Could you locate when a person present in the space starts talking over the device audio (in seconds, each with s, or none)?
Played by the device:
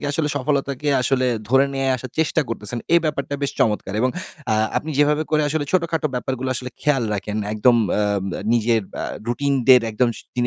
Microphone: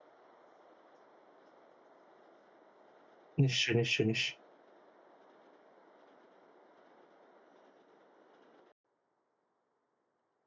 3.4 s